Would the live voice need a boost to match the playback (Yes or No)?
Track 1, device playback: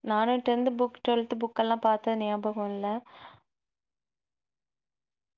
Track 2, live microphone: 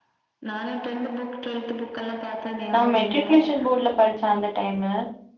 No